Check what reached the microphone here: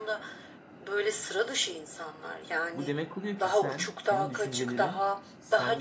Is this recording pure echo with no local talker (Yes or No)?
No